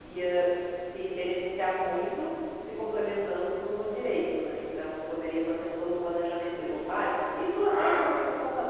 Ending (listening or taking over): listening